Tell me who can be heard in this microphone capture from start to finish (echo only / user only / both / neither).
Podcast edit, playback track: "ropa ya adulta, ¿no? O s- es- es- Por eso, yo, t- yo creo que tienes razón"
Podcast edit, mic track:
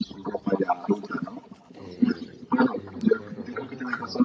both